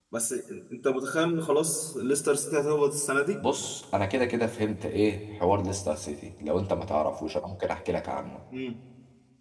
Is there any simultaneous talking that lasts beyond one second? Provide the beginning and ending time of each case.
none

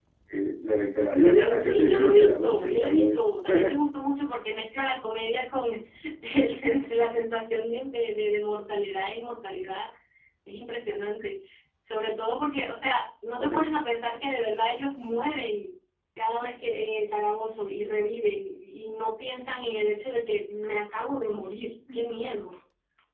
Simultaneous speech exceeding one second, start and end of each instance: 1.1-3.2

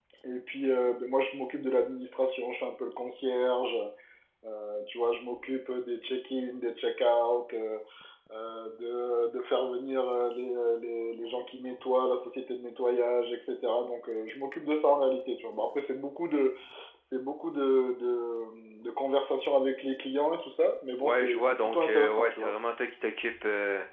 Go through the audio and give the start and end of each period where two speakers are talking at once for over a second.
21.0-22.5

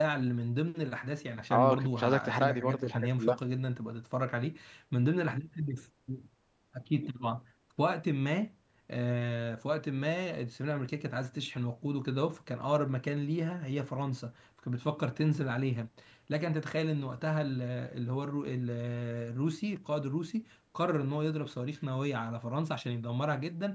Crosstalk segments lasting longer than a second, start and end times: 1.5-3.4

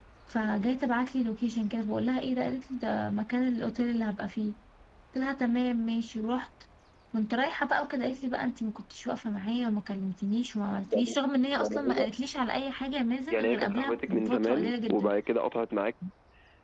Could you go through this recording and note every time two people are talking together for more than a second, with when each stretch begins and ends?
13.3-15.1

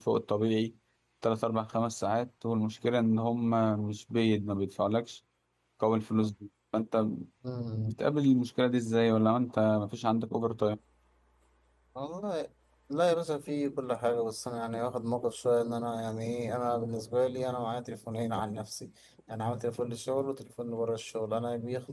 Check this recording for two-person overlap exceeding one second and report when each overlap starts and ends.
none

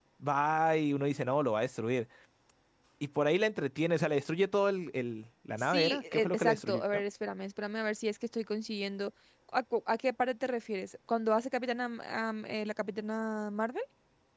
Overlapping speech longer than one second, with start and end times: 5.6-7.0

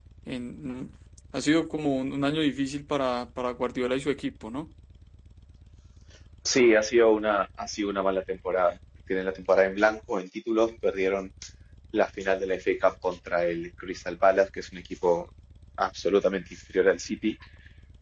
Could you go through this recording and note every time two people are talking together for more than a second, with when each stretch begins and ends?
none

